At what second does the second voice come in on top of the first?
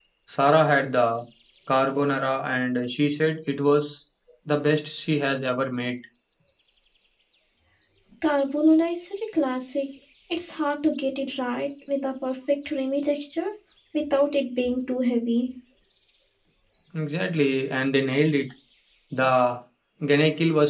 none

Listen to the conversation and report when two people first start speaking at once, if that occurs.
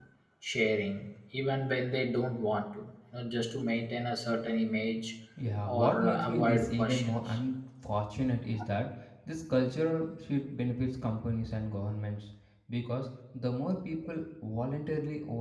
5.6 s

